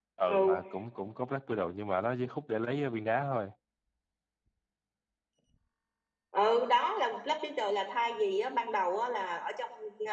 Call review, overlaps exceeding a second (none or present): none